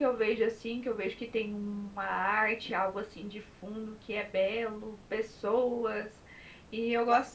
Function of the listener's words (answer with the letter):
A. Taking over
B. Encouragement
A